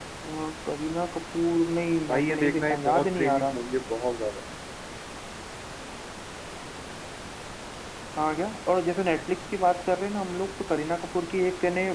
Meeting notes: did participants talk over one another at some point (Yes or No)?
Yes